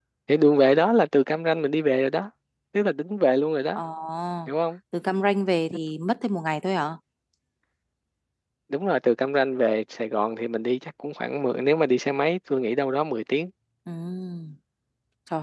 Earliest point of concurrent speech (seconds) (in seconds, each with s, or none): none